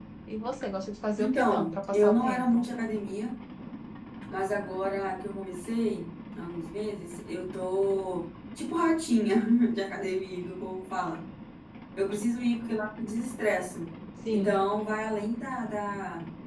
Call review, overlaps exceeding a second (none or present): present